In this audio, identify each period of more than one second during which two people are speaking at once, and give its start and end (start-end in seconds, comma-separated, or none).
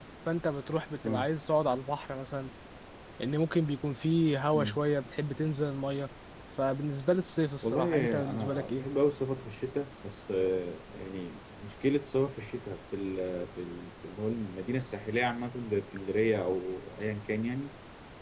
7.6-8.8